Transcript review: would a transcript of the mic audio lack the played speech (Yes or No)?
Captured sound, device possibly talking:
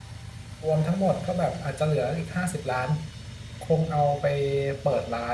Yes